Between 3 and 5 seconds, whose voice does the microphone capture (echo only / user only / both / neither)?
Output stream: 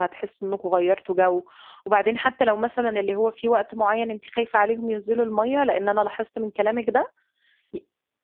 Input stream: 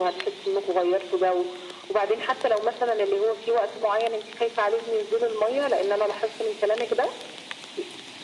echo only